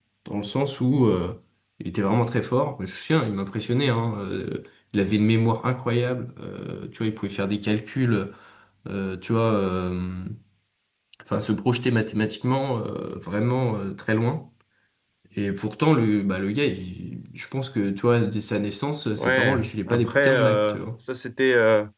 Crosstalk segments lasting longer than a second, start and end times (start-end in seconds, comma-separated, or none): 19.2-20.9